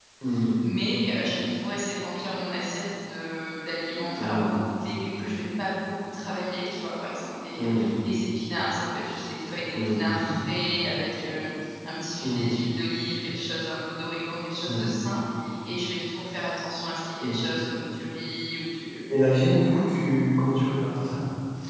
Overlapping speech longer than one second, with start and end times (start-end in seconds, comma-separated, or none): none